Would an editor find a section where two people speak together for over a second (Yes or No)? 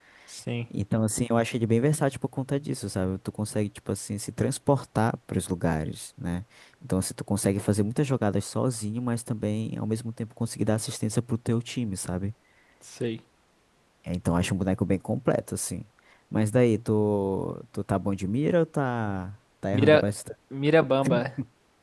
No